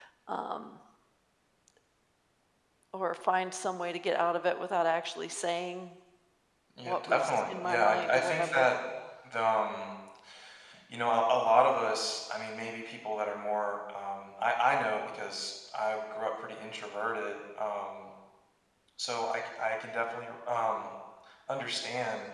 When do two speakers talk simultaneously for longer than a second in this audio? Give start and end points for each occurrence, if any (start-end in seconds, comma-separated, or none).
6.8-8.7